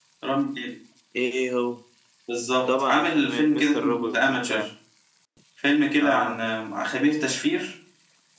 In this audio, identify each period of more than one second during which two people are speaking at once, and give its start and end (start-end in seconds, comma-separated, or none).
2.7-4.7